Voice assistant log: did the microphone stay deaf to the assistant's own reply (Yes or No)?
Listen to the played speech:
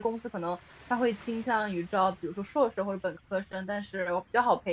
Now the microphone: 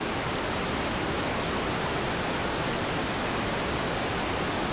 Yes